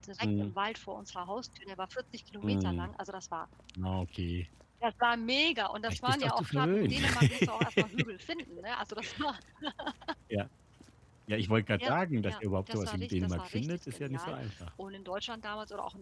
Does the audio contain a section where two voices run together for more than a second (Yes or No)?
Yes